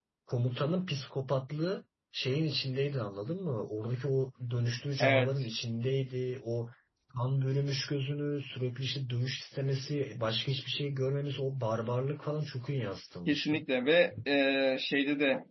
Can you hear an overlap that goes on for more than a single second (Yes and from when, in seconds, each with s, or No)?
No